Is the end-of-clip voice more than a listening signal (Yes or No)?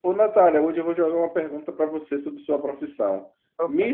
No